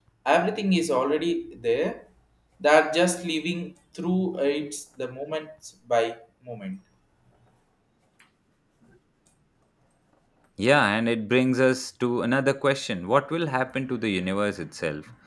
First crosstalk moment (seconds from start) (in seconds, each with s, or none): none